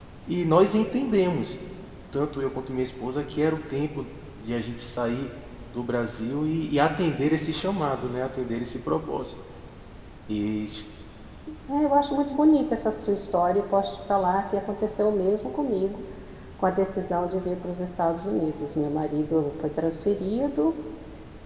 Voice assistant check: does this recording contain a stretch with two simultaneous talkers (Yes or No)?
No